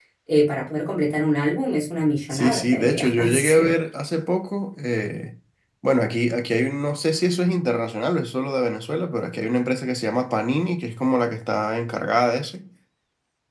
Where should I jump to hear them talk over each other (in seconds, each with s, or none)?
2.3 s